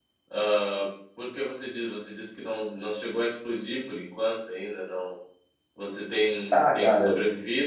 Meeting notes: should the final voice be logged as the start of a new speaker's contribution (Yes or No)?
No